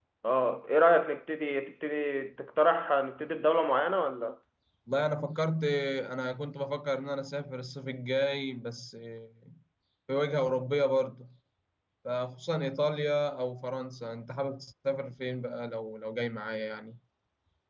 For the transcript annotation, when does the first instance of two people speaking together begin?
none

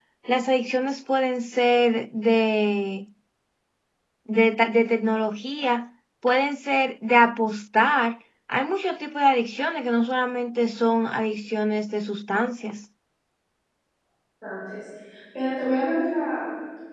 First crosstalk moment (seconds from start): none

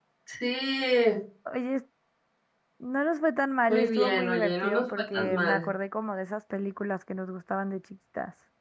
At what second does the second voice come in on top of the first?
3.7 s

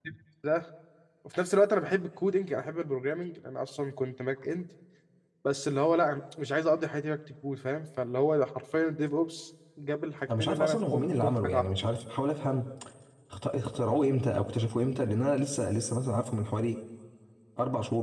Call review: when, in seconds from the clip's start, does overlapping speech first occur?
10.3 s

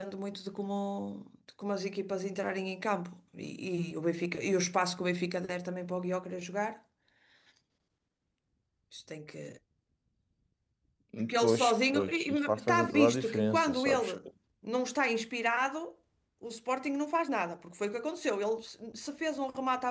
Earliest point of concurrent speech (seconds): 11.3 s

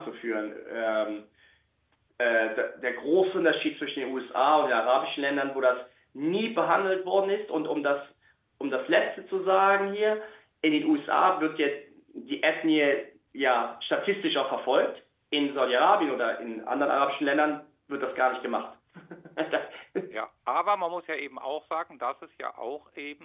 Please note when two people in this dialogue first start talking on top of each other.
none

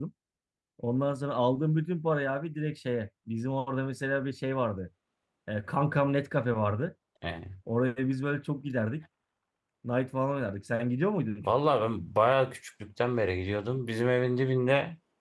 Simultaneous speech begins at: none

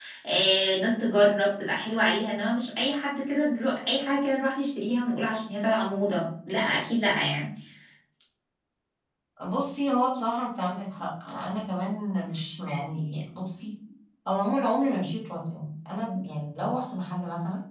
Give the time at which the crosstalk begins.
none

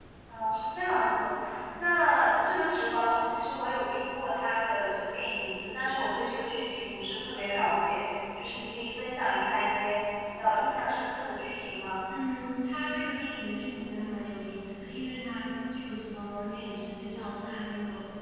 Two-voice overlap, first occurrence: none

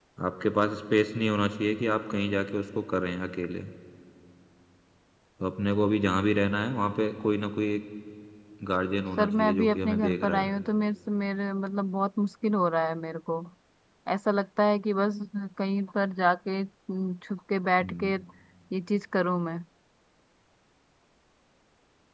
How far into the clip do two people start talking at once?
9.2 s

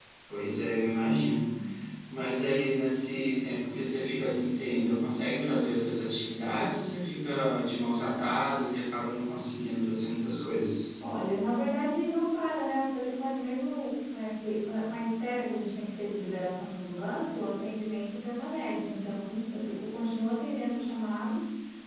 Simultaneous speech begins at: none

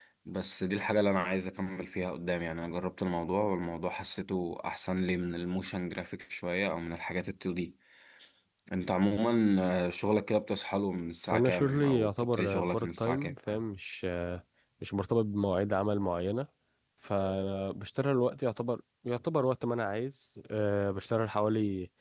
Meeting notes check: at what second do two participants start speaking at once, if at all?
11.3 s

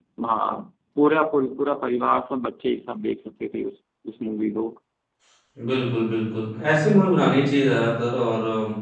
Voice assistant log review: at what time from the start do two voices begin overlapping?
none

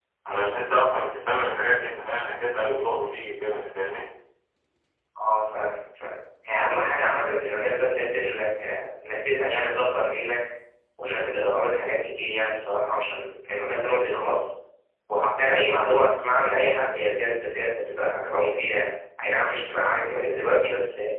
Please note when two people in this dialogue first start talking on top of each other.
none

